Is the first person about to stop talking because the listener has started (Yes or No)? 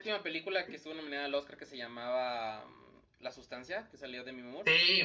Yes